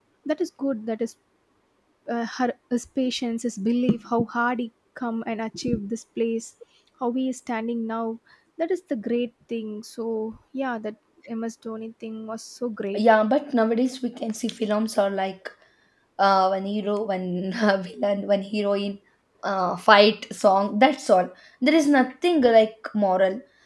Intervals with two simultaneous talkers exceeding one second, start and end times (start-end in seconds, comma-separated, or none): none